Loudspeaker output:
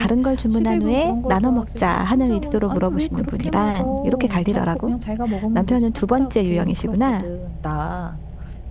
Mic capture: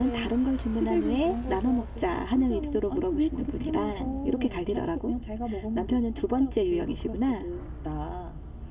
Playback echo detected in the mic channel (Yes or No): Yes